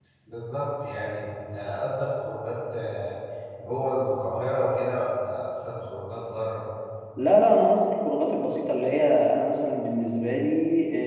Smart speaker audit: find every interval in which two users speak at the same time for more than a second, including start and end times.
none

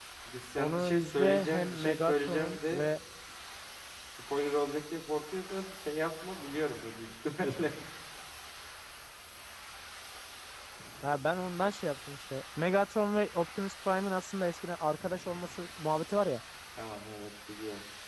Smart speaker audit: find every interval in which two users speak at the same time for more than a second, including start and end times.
0.6-2.8

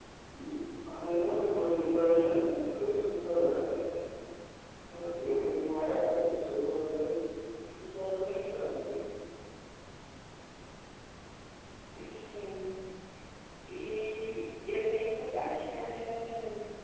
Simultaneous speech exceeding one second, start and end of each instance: none

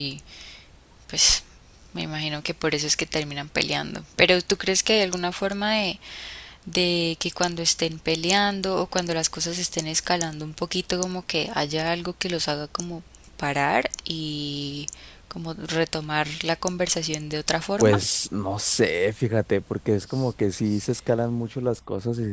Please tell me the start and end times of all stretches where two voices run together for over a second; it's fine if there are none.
none

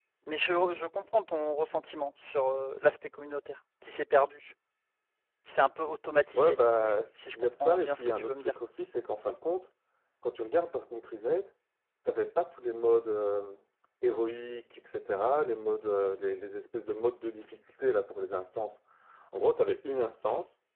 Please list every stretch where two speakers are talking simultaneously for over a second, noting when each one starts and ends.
7.2-8.5

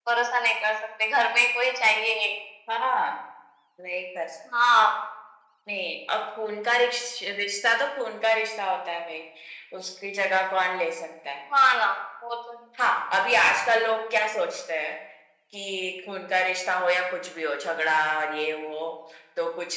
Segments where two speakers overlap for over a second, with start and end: none

